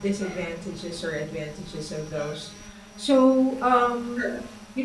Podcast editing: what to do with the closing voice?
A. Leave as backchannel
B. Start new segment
A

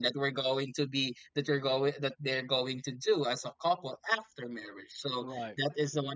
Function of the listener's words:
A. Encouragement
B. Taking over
A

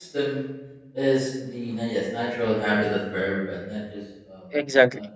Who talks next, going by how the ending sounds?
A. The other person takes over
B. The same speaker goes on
B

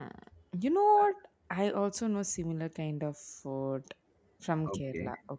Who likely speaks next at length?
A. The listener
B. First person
A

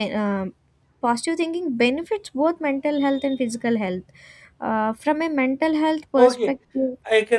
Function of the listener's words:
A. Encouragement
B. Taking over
B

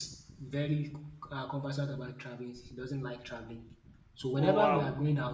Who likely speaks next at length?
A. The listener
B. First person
B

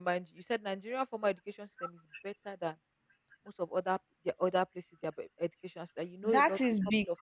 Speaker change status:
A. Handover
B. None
A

